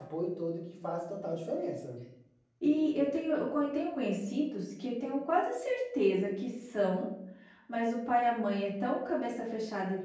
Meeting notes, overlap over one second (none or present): none